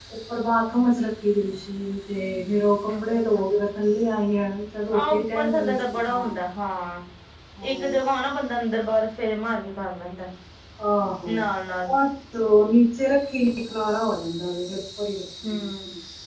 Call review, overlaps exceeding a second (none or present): present